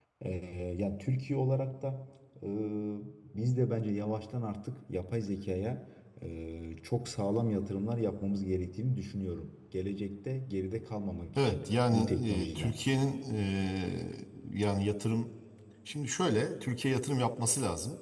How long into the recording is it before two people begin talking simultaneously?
11 s

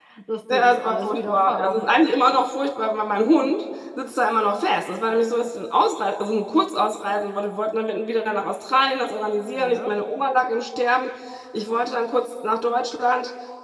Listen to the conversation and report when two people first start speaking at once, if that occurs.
1 s

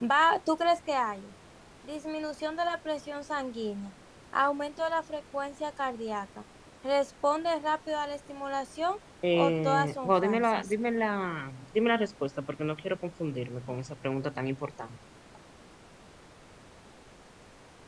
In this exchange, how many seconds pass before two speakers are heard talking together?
9 s

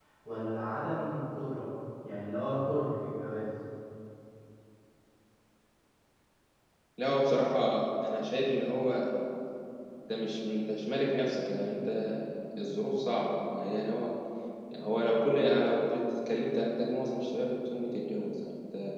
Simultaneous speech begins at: none

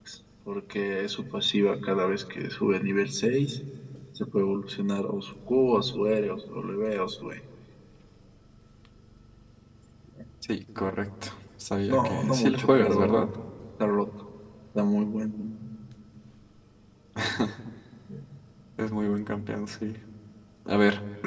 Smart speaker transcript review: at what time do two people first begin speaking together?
12 s

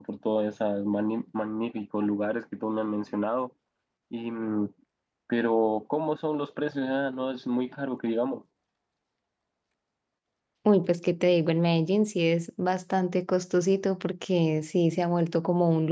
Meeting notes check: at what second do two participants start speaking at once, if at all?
none

